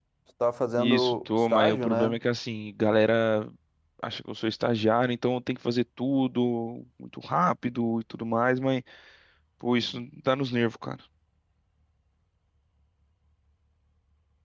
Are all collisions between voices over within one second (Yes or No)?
No